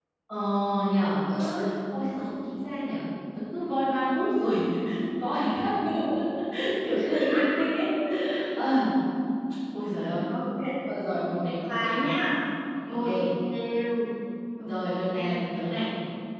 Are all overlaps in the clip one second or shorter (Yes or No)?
Yes